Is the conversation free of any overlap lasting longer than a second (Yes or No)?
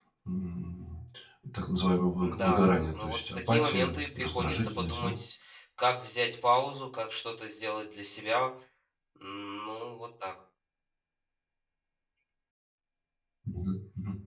No